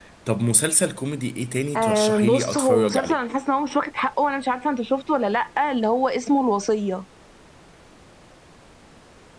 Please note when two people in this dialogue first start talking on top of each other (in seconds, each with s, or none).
1.8 s